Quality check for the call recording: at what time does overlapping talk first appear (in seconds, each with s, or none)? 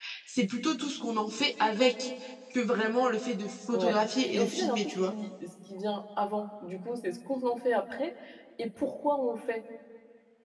3.7 s